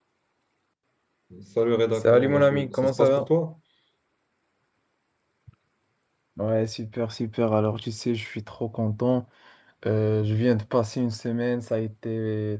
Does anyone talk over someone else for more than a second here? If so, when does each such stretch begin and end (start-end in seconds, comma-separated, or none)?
1.9-3.3